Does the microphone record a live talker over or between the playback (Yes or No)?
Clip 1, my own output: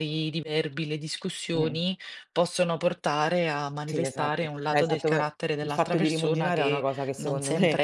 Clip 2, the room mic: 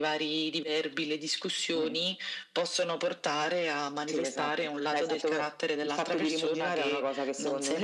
No